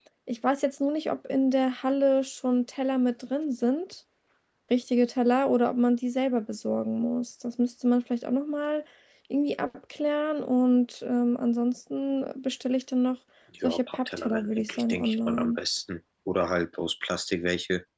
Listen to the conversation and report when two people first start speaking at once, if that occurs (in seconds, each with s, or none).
13.5 s